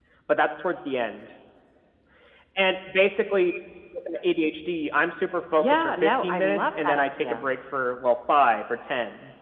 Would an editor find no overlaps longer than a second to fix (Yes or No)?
No